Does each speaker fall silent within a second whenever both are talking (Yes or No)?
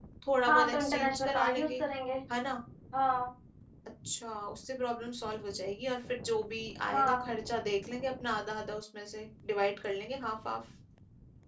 No